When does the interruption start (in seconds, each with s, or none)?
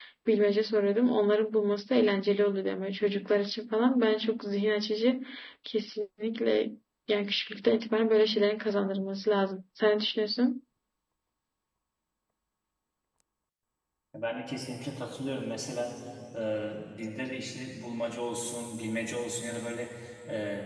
none